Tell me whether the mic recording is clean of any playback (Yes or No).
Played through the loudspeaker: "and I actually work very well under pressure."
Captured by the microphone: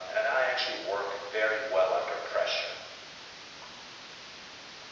No